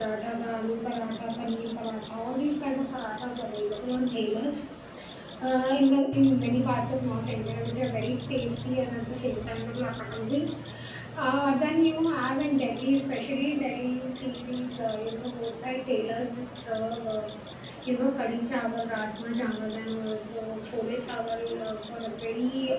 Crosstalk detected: No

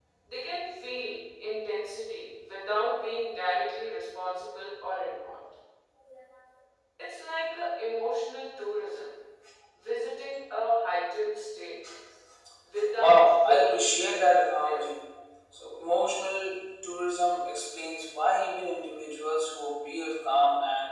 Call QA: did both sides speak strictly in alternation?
No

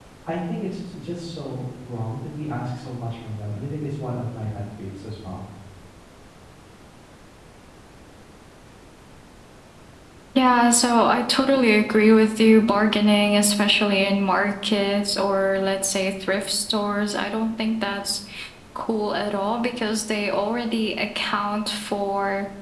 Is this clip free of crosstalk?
Yes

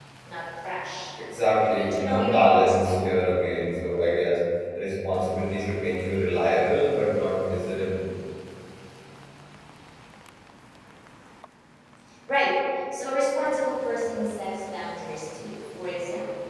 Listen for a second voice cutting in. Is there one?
Yes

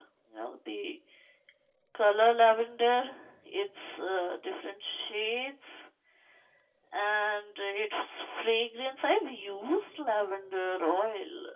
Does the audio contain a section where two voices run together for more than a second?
No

